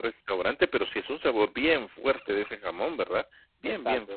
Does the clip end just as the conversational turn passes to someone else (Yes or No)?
Yes